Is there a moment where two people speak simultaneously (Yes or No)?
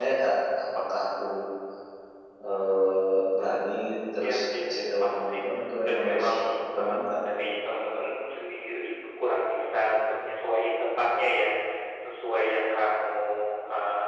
Yes